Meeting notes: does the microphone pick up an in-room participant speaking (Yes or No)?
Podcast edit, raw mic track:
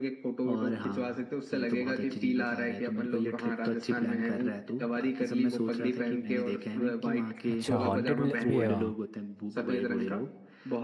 Yes